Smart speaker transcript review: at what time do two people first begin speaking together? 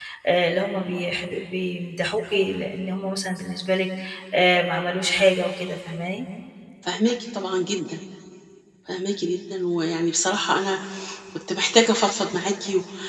none

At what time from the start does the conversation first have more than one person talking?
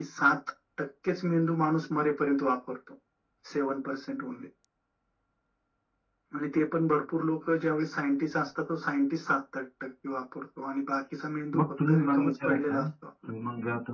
11.5 s

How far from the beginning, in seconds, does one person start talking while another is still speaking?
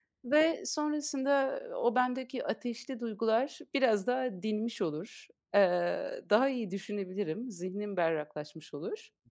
none

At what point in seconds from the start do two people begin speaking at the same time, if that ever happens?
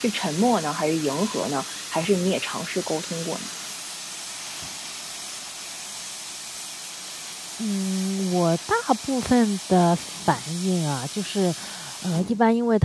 none

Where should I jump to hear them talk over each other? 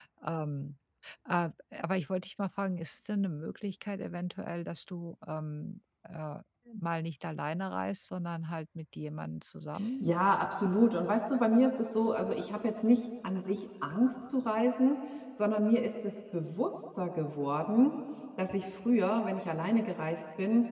none

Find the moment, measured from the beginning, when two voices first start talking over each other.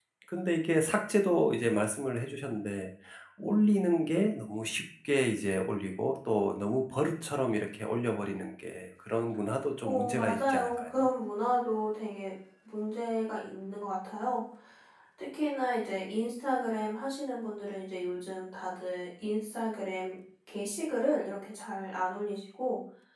9.8 s

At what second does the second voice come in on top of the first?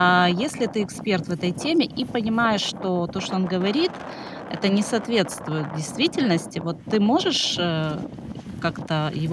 none

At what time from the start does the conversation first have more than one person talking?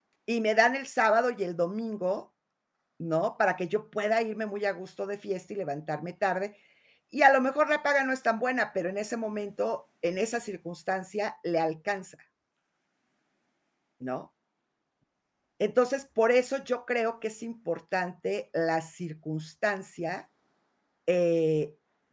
none

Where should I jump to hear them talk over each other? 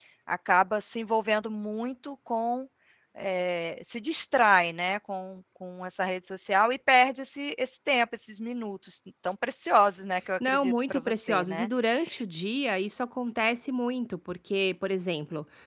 10.4 s

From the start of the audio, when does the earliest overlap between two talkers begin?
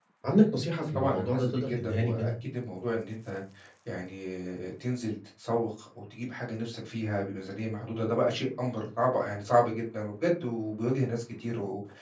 0.9 s

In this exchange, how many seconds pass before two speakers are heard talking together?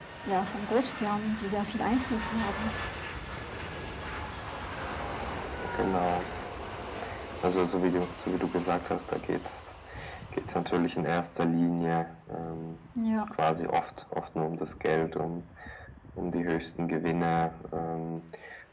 none

